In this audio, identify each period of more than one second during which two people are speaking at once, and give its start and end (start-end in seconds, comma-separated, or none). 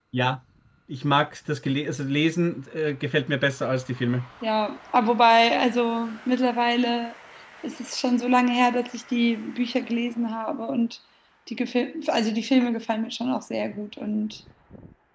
none